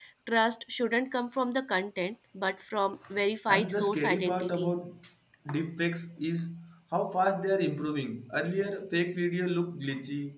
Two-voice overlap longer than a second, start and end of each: 3.5-4.7

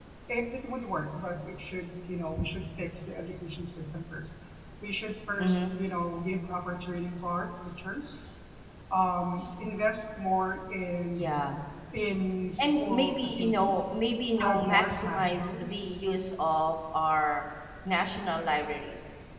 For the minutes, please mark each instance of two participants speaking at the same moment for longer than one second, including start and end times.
12.6-13.8, 14.4-15.8

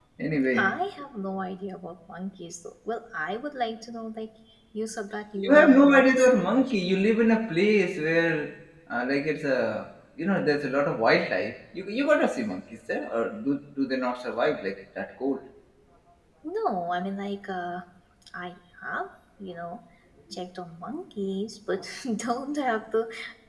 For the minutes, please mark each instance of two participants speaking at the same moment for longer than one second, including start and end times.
5.4-6.7

